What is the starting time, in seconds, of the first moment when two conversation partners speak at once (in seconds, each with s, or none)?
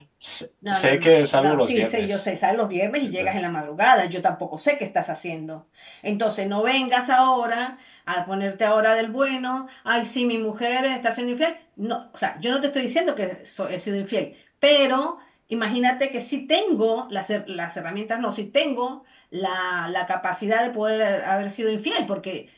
0.7 s